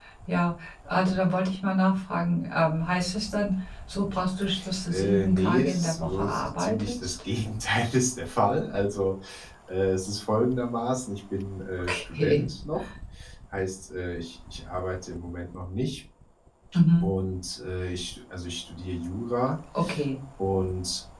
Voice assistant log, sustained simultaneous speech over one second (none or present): present